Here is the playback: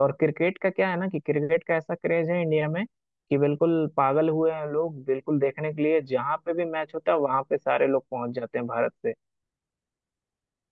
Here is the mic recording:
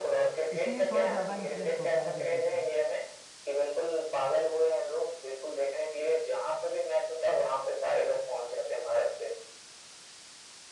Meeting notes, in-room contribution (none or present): present